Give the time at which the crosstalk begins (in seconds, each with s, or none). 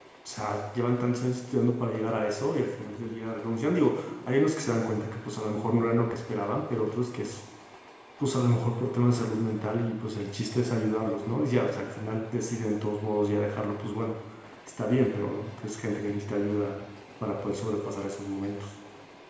none